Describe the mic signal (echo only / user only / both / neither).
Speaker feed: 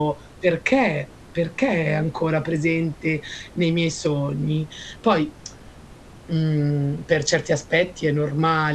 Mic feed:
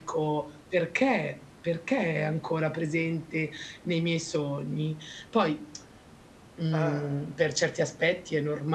both